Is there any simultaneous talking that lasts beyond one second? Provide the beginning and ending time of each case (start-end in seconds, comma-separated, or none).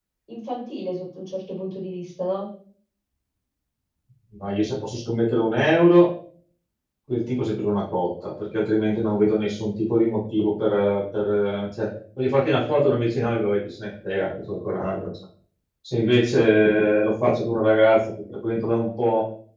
none